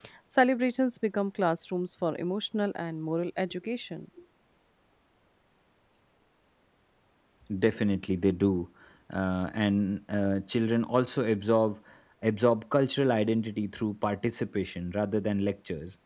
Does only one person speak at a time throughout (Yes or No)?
Yes